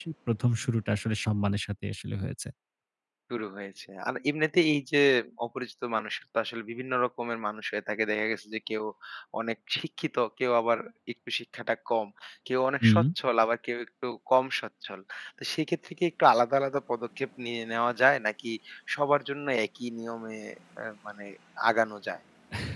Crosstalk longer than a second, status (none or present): none